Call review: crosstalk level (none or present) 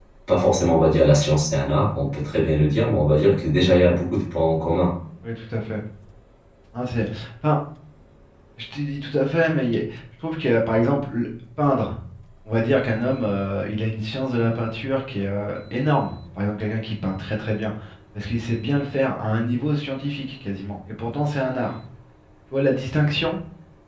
none